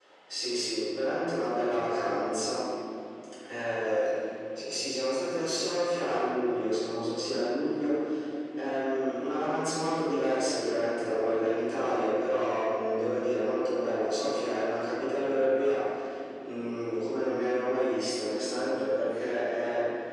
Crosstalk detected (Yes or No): No